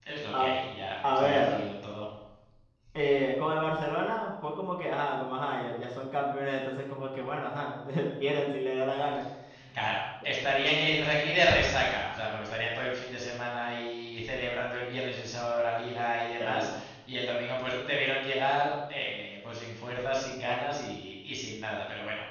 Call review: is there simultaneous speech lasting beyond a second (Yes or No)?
No